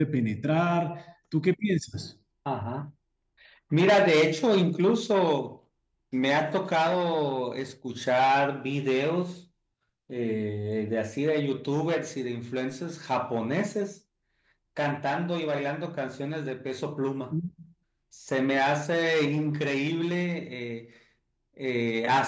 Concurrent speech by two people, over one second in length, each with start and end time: none

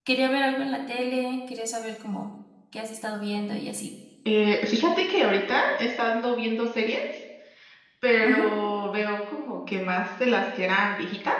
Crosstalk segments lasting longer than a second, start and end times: none

